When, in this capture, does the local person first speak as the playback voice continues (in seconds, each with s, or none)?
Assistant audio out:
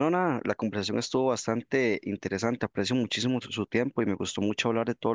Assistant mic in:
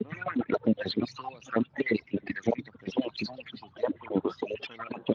none